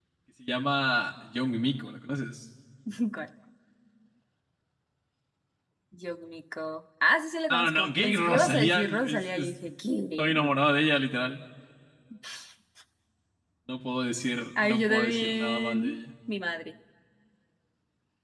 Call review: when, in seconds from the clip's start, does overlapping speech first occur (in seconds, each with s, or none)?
7.5 s